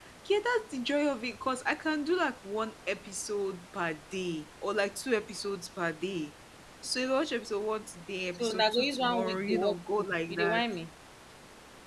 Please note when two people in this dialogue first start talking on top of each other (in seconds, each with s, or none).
8.4 s